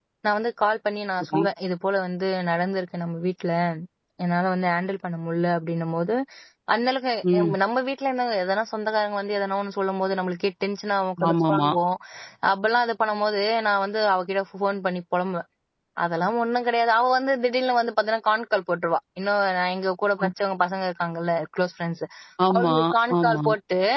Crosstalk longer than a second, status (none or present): none